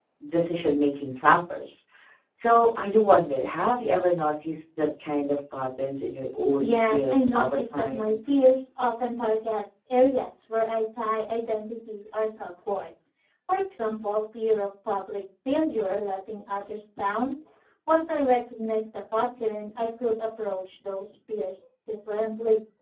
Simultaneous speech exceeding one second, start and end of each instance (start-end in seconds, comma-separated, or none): 6.6-8.1